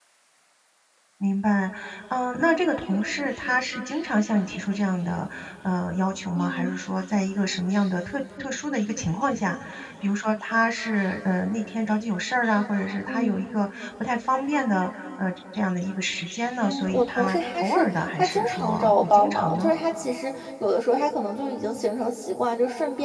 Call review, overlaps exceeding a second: present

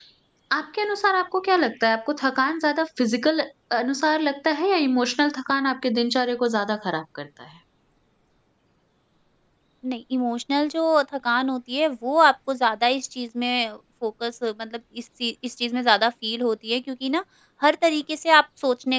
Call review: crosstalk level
none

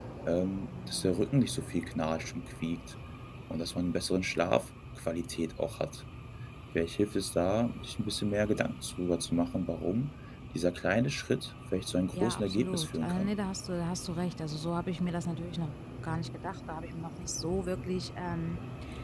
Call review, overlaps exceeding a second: present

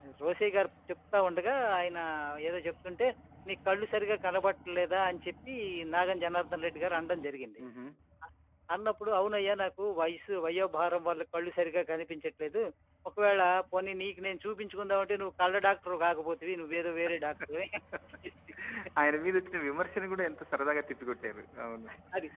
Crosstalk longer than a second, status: none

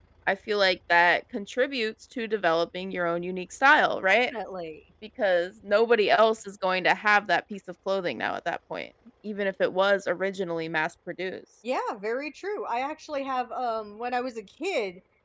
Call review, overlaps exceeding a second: none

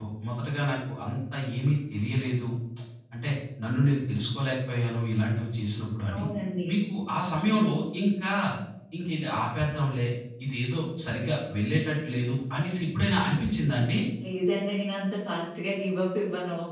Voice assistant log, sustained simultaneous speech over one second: none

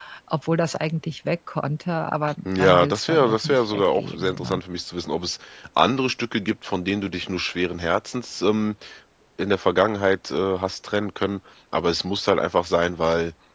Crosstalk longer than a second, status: present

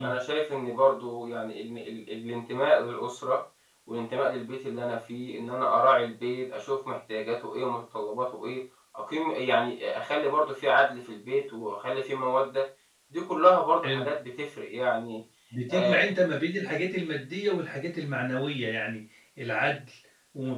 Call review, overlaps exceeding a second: none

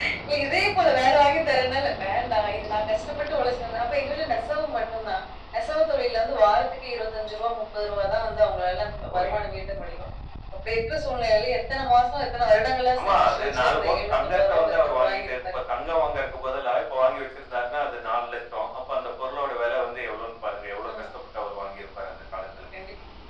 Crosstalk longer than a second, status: present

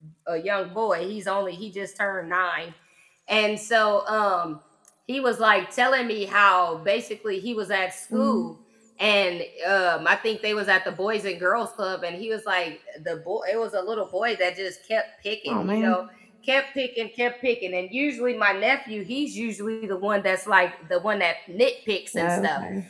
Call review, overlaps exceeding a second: none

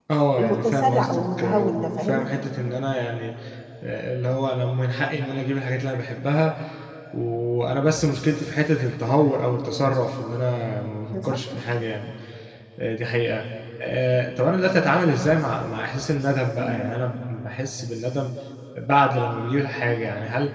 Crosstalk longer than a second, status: present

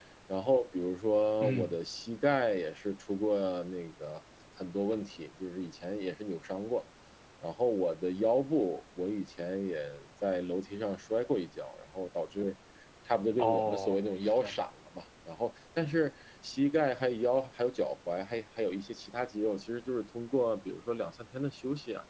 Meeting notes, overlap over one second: present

